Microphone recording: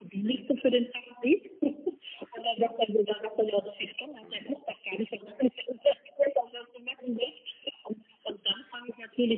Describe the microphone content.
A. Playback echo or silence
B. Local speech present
B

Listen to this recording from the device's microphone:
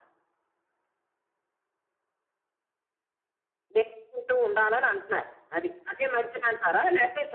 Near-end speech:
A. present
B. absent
B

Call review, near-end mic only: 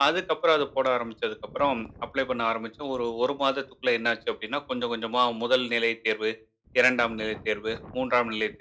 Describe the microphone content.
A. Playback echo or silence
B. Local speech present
A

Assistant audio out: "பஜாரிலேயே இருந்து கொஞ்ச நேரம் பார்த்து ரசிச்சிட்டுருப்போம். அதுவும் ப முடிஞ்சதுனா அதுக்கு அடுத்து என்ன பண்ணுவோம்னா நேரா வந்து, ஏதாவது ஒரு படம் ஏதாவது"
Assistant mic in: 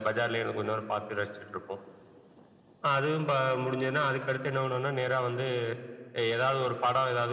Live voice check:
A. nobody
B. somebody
A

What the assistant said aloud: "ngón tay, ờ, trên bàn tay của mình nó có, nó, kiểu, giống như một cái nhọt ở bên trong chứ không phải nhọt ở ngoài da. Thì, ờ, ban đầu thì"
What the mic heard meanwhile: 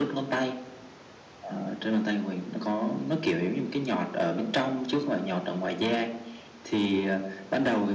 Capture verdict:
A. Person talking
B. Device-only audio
B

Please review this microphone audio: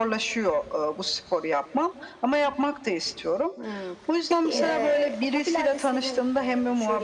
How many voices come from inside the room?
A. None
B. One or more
B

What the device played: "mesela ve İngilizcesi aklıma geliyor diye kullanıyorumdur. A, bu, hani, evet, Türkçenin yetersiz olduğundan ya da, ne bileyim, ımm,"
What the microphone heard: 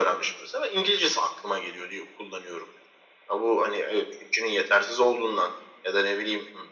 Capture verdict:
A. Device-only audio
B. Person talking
A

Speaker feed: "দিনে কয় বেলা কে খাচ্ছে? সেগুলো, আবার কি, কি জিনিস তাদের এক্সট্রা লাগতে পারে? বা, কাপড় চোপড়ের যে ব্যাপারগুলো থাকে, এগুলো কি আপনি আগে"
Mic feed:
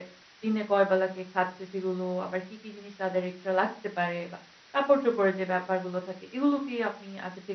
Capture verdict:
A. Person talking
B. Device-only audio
B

